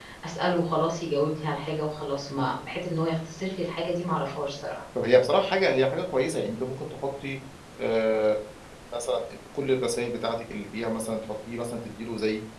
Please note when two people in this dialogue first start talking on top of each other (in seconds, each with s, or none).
none